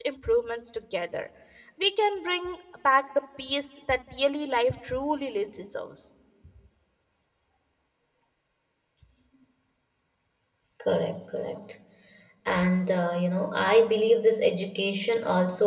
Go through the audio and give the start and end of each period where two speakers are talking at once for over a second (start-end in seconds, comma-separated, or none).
none